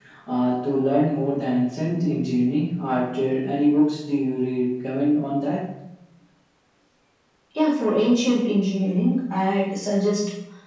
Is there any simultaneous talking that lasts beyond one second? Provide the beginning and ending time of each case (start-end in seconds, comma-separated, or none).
none